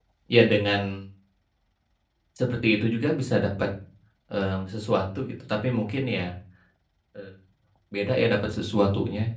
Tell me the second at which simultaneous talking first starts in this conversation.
none

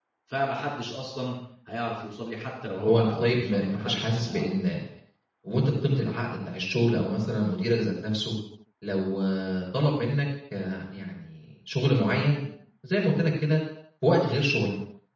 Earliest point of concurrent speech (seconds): 2.9 s

